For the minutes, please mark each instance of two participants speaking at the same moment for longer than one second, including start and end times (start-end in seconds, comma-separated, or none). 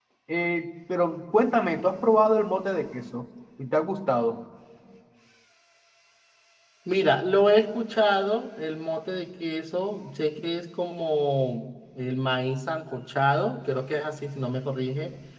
none